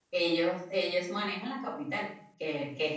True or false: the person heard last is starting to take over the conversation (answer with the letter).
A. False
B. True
A